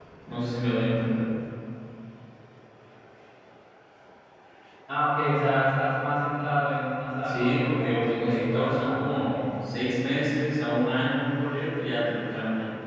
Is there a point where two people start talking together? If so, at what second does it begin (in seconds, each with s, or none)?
7.2 s